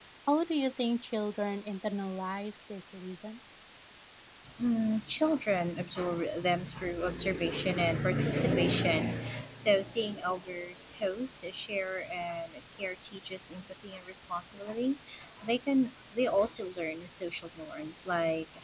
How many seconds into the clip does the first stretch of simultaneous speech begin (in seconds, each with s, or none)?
none